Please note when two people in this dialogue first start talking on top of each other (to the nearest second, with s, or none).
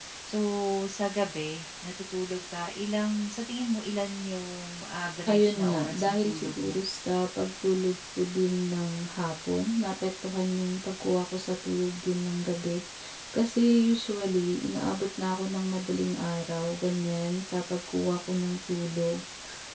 5 s